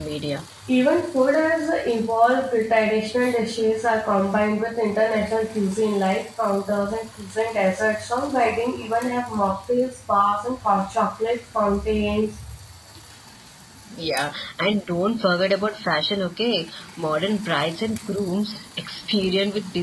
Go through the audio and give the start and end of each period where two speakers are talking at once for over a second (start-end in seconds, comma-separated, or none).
none